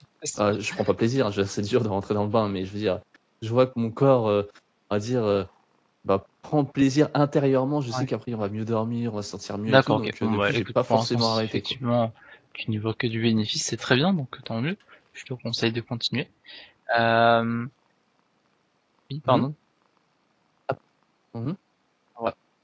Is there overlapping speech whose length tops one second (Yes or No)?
Yes